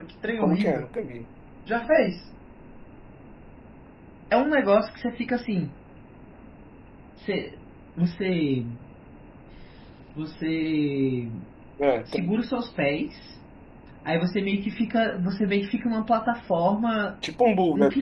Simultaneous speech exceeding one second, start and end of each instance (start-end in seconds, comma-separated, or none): none